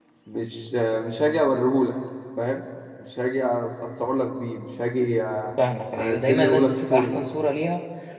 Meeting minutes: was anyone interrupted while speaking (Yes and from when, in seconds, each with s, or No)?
Yes, from 6.0 s